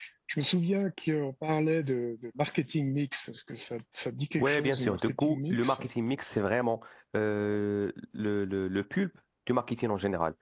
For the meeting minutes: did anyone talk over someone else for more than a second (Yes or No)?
Yes